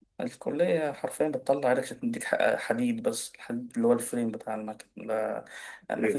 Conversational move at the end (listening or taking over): listening